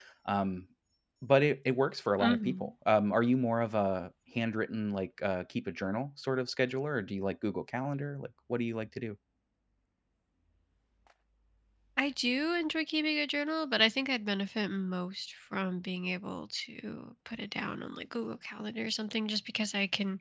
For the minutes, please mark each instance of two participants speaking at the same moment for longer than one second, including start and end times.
none

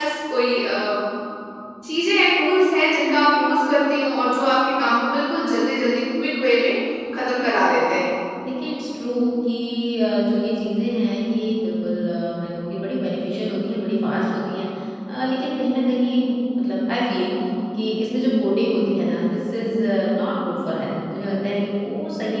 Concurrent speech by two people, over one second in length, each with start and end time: none

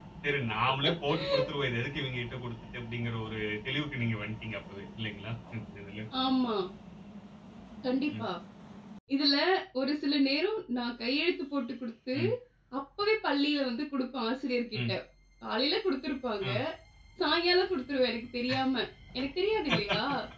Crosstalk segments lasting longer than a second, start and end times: none

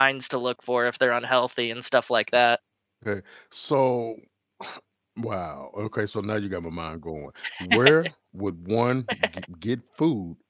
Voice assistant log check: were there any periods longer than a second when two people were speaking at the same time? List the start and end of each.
none

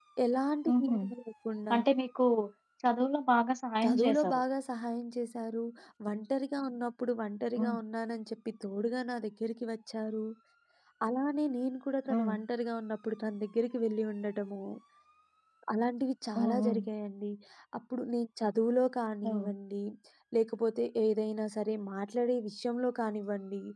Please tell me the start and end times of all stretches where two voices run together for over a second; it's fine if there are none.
none

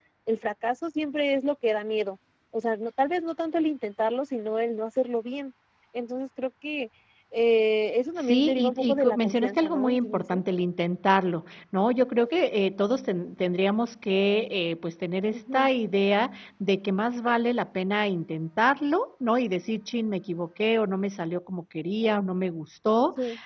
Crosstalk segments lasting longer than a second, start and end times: 8.2-10.4

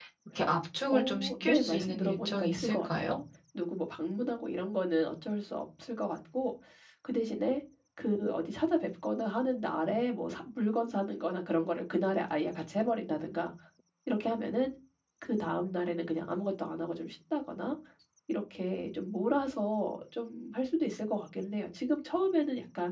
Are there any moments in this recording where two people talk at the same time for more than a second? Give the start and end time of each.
0.9-3.1

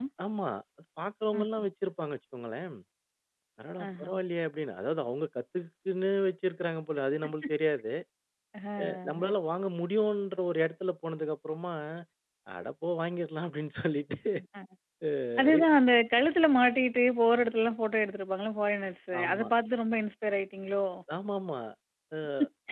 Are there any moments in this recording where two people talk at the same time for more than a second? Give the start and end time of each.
none

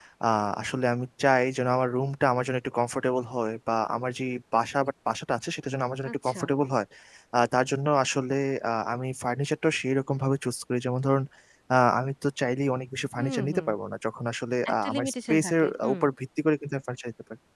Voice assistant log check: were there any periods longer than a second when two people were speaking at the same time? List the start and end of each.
14.7-16.0

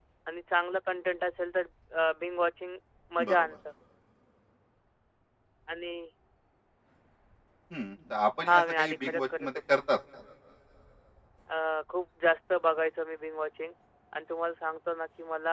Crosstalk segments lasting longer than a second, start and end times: 8.5-9.8

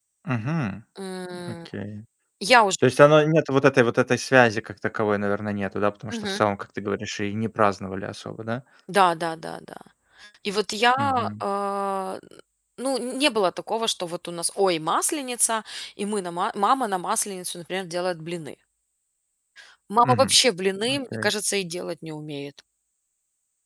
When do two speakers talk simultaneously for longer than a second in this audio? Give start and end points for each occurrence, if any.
none

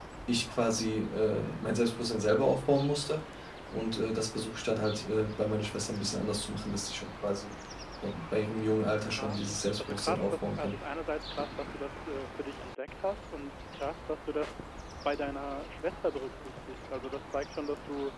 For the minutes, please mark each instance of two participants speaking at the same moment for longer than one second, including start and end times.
9.0-10.7

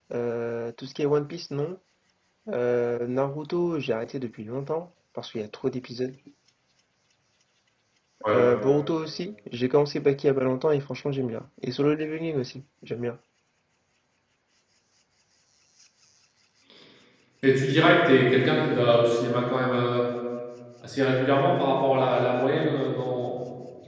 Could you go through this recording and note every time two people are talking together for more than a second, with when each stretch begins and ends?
none

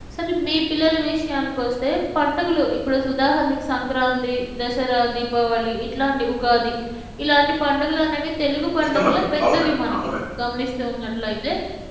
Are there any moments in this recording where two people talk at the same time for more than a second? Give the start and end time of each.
8.8-10.1

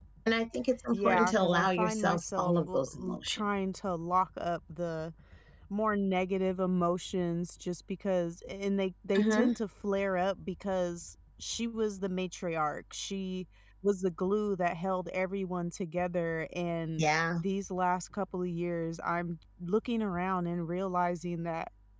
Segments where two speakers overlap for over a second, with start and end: 0.9-3.4

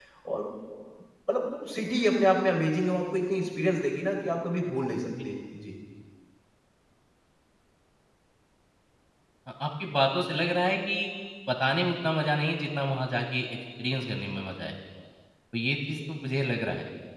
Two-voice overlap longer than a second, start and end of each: none

